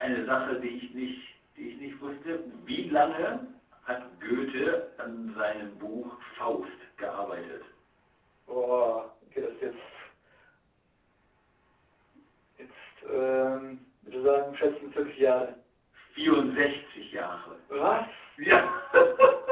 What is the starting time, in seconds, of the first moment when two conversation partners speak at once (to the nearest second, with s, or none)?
none